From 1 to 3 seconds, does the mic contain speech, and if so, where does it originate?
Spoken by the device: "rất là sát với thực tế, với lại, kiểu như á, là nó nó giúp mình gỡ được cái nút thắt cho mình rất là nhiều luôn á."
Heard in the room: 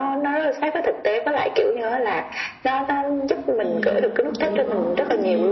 echo only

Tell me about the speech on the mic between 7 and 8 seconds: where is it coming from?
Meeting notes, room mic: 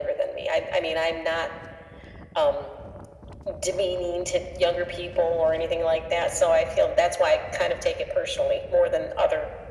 echo only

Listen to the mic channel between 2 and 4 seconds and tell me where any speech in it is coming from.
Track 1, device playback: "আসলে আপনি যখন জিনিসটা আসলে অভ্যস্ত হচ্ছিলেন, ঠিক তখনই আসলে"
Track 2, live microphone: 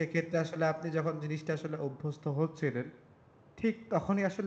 echo only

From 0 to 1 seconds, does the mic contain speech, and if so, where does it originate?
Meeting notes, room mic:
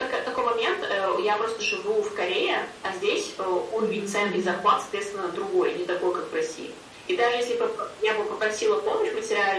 echo only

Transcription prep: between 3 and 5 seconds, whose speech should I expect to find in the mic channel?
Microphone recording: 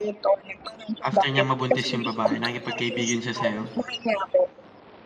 both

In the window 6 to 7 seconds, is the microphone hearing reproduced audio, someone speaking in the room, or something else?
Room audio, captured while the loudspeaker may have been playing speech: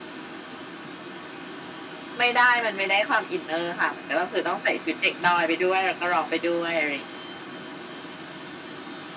echo only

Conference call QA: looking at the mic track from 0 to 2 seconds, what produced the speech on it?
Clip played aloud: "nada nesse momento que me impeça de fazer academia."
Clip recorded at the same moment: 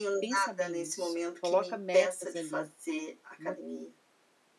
both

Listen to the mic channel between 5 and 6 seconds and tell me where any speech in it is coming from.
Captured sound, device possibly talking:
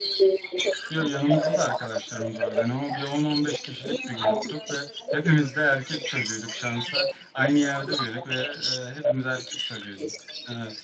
both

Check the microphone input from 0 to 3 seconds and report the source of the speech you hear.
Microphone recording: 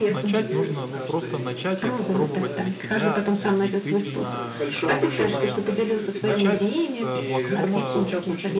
both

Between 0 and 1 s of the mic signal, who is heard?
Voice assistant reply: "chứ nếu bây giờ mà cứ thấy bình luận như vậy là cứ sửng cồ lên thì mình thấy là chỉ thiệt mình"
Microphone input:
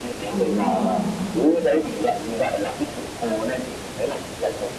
both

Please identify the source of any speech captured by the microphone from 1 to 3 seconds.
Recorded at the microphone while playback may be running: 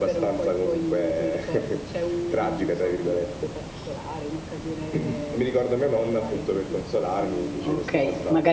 echo only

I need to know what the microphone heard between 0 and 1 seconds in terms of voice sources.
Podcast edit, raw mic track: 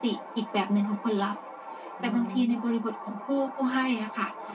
echo only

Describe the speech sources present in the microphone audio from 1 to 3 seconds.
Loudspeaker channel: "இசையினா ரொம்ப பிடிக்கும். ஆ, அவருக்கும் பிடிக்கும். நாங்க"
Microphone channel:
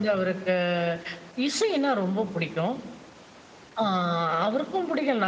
echo only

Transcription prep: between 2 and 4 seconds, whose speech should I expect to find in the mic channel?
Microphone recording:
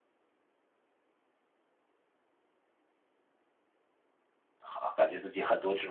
neither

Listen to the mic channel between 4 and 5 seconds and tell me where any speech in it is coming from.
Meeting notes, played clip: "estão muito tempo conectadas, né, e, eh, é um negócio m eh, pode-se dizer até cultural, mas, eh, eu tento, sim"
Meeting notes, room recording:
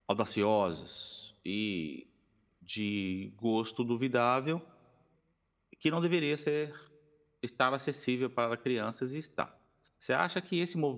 user only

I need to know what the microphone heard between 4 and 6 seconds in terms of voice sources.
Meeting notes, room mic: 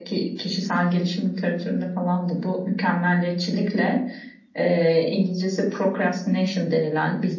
echo only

